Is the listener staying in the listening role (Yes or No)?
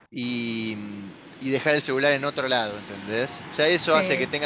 Yes